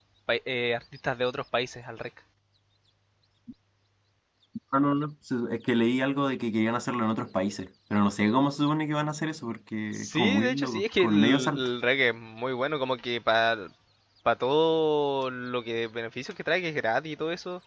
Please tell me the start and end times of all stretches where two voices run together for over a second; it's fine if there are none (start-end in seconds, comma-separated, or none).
9.9-11.6